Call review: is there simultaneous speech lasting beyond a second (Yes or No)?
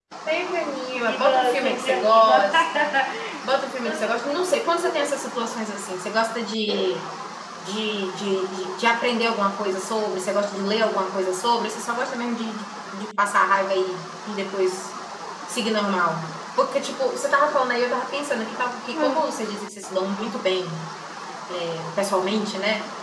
Yes